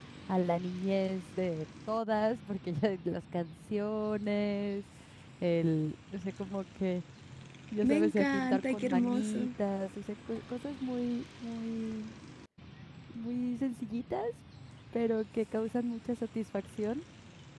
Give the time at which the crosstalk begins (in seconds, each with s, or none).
7.8 s